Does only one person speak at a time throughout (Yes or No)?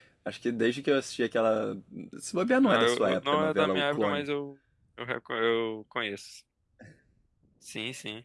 No